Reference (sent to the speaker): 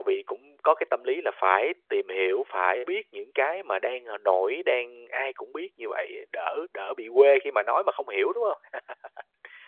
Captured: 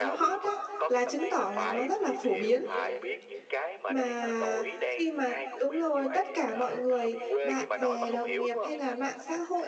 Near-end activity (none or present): present